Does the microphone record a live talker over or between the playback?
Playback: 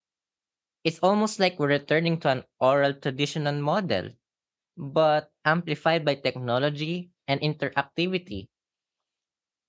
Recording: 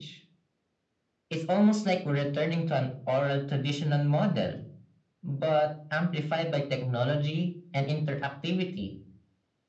No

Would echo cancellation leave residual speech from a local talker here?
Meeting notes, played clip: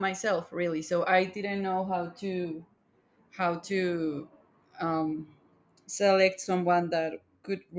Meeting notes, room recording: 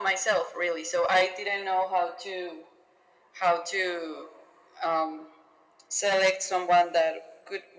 No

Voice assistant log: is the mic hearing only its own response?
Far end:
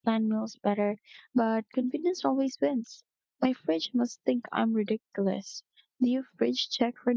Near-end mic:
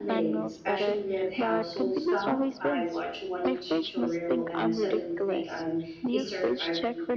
No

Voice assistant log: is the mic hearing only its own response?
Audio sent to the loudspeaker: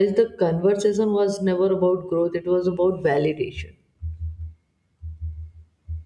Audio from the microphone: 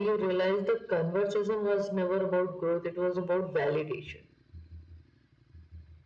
Yes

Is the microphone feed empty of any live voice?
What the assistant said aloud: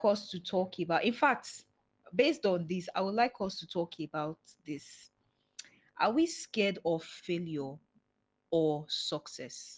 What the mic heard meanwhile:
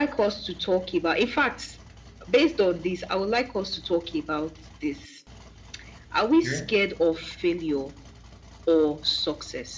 No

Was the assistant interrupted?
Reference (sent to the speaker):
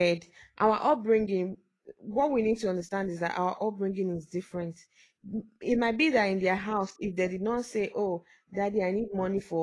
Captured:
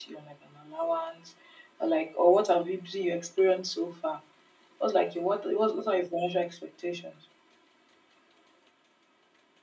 Yes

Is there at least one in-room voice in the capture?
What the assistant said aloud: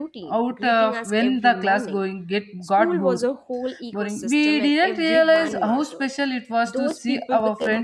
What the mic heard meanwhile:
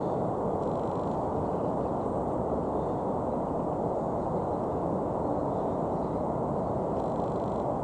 No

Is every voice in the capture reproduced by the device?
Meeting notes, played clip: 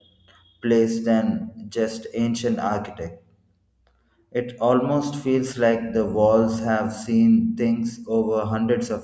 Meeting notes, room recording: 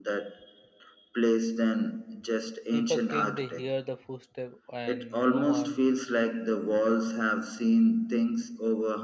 No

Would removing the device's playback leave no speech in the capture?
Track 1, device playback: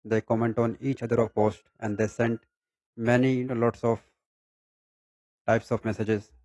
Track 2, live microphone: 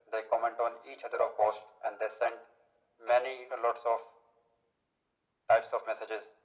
Yes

